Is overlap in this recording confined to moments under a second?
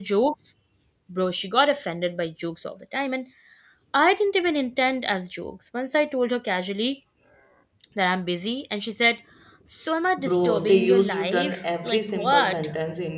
No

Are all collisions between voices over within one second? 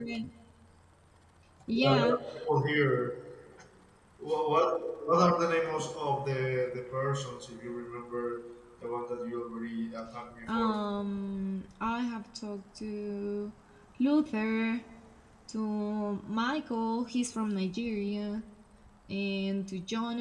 Yes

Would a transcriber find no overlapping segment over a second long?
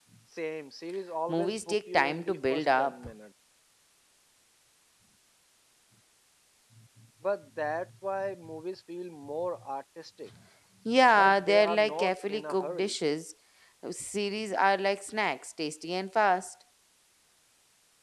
No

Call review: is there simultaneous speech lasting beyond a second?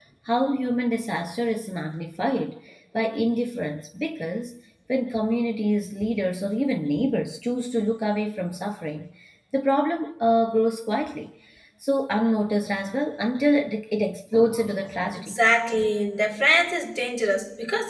No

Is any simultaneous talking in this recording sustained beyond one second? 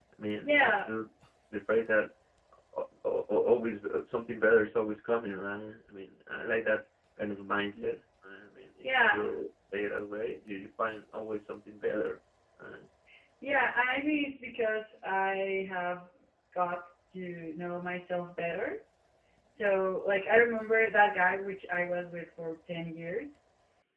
No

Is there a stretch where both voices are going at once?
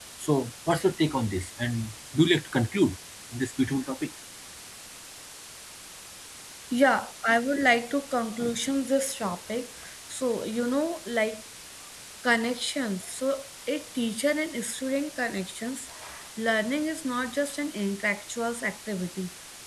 No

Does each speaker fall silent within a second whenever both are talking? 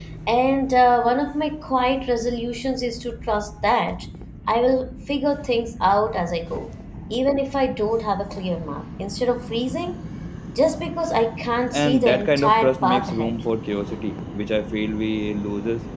No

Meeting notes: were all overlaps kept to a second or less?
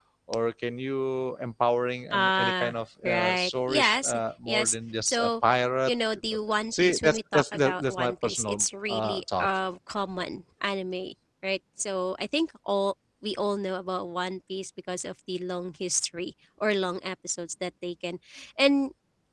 No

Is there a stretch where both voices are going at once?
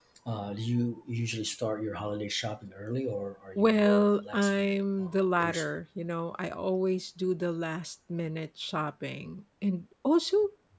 Yes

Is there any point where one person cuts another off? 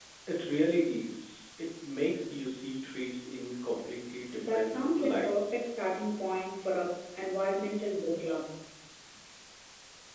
Yes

